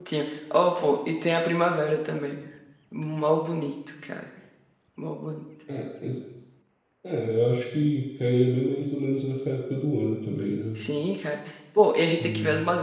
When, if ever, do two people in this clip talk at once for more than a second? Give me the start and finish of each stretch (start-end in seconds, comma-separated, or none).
none